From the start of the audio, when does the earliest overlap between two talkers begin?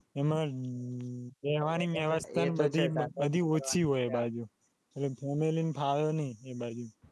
2.4 s

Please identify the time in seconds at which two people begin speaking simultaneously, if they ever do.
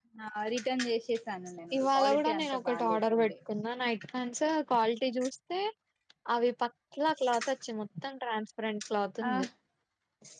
1.7 s

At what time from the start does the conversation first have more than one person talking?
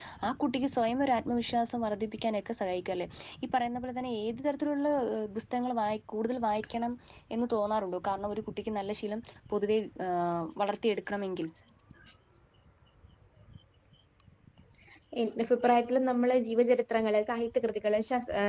none

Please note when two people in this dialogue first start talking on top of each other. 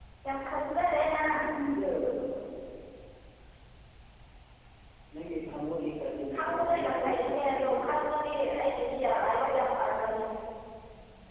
6.3 s

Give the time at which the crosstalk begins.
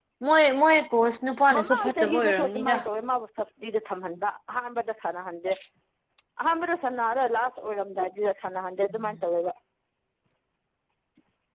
1.5 s

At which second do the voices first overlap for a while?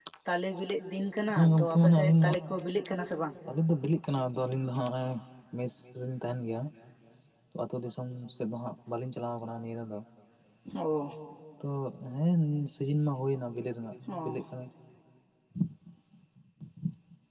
1.3 s

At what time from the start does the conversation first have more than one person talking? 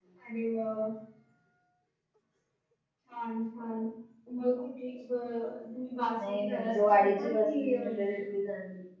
6.2 s

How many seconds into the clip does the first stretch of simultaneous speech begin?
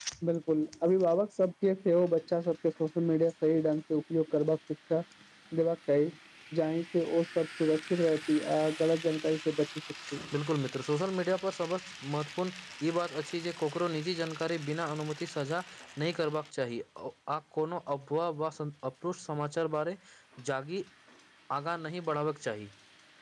none

